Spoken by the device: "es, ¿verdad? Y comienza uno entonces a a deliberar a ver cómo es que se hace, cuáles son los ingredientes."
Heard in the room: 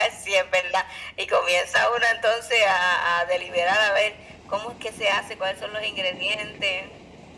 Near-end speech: none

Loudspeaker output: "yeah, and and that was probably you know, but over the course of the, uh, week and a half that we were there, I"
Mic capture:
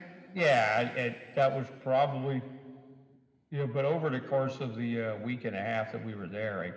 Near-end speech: none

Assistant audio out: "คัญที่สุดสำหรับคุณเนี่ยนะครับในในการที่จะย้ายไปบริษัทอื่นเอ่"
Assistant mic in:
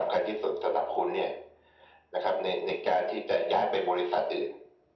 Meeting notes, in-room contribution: none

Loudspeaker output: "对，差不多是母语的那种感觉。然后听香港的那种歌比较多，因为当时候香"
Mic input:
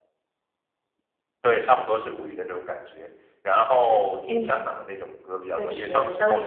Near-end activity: present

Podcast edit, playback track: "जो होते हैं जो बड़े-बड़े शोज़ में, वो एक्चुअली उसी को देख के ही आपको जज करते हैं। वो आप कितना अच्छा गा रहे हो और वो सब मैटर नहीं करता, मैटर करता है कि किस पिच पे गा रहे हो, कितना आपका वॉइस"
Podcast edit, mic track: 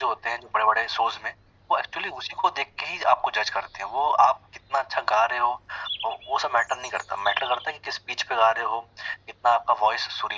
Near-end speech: none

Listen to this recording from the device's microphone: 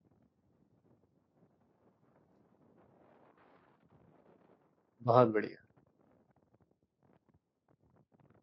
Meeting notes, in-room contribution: present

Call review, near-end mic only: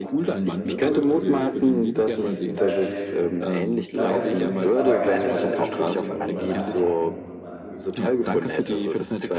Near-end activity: present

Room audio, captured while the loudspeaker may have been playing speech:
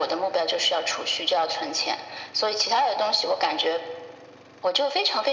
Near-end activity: none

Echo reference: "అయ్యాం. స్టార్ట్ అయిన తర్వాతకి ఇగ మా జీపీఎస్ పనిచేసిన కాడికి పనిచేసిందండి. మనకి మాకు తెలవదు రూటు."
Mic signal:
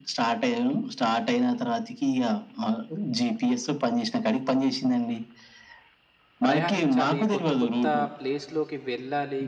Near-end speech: present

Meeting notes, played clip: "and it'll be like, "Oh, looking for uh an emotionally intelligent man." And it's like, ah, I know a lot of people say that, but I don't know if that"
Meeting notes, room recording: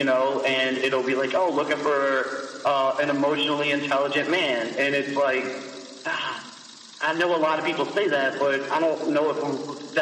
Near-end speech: none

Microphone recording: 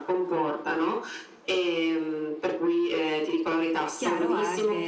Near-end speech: present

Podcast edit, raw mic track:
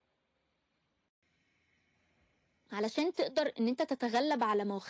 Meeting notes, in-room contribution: present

